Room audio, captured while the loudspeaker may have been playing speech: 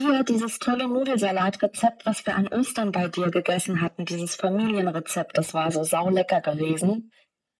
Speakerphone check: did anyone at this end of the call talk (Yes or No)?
No